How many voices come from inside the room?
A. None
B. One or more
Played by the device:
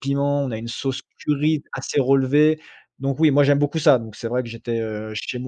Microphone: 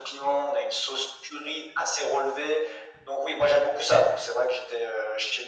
A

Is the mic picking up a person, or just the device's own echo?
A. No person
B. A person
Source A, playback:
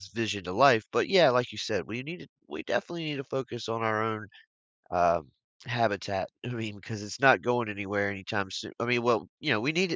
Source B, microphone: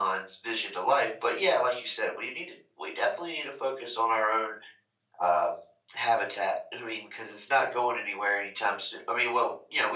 A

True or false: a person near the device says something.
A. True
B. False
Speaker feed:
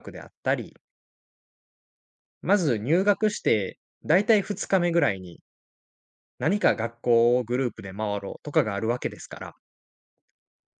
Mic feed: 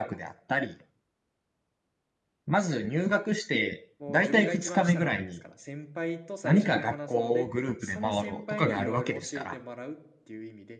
A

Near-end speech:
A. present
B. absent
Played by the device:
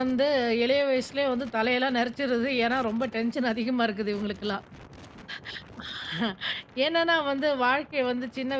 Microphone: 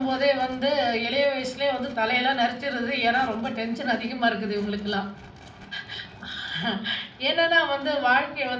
B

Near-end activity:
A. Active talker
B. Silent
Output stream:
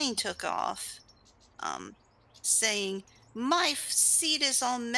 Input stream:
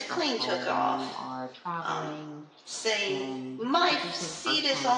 A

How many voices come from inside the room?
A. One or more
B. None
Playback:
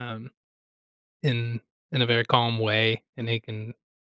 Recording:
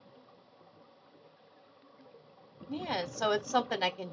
A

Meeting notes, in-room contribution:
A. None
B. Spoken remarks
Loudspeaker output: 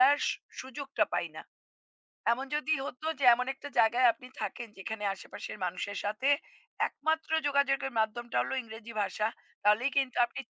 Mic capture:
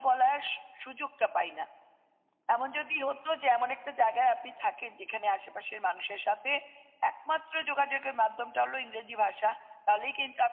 A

